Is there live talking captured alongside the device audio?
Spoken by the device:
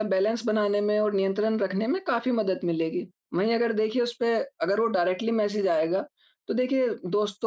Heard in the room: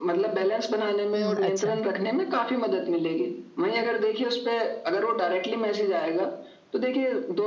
Yes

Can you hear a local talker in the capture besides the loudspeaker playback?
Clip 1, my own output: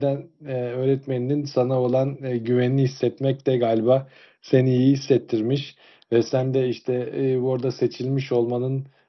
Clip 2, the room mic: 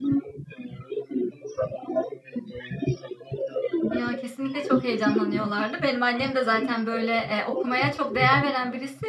Yes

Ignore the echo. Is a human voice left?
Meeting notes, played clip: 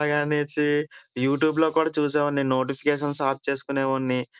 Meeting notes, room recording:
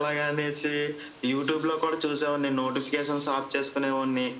No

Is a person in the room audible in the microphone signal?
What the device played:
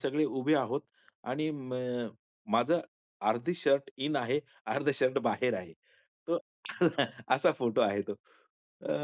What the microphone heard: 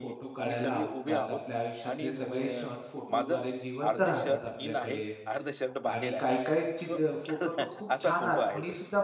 Yes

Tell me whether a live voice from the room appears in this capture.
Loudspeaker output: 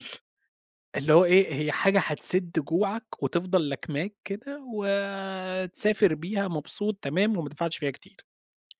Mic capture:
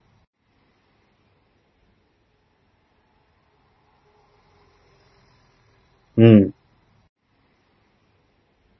Yes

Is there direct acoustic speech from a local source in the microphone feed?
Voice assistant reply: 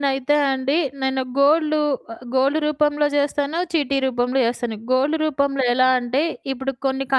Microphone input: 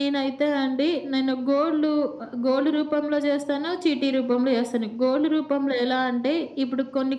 No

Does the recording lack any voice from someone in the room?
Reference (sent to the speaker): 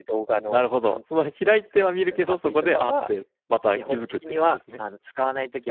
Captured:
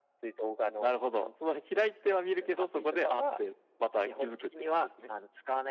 Yes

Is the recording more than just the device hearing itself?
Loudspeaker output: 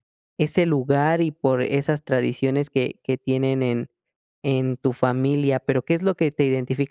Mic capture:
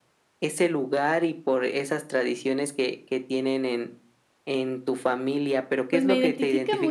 Yes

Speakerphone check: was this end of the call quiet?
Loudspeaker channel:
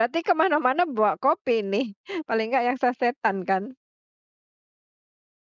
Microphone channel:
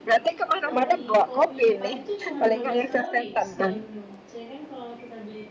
No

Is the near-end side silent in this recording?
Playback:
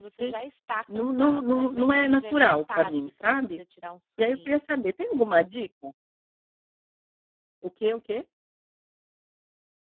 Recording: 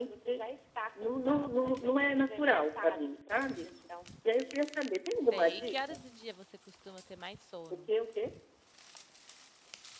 No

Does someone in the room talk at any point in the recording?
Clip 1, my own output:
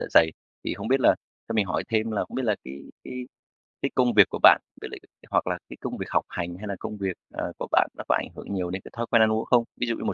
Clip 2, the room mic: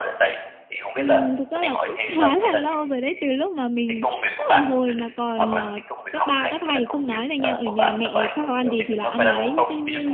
Yes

